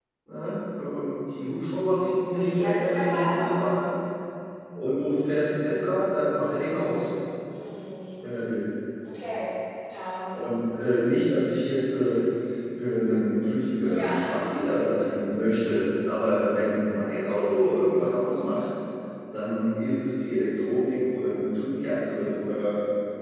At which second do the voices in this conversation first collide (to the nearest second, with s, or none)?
2 s